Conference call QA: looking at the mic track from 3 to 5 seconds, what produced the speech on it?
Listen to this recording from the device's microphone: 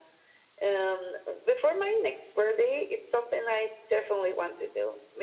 echo only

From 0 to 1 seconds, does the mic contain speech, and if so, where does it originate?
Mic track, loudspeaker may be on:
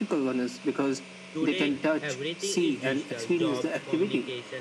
echo only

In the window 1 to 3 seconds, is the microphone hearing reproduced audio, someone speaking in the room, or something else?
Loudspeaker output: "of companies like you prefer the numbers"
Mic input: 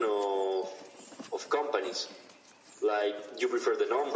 echo only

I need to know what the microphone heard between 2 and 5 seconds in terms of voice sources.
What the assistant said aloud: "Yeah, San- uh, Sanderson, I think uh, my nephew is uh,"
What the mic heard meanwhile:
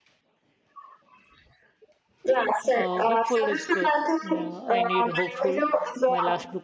both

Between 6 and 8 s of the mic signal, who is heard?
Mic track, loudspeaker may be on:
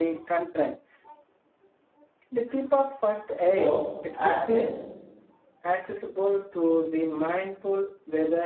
echo only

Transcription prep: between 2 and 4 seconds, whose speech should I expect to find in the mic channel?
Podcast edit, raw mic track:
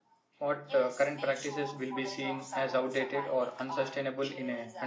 both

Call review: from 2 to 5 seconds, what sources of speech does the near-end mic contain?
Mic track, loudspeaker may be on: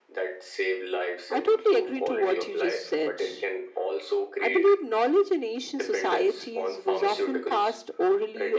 both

